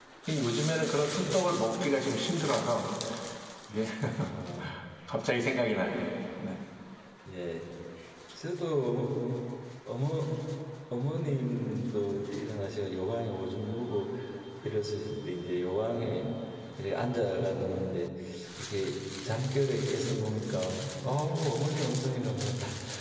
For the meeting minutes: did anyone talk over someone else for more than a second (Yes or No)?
No